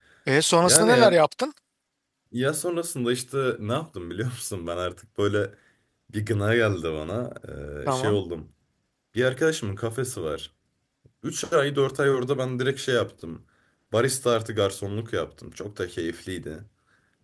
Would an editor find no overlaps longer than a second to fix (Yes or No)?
Yes